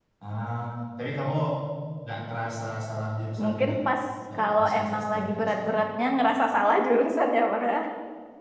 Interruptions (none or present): present